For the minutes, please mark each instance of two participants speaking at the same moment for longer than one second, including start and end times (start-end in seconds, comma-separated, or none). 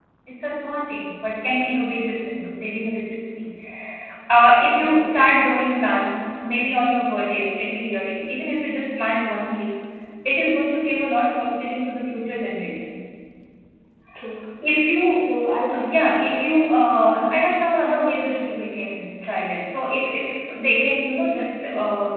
none